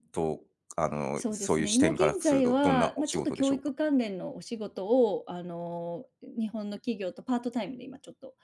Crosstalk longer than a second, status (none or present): present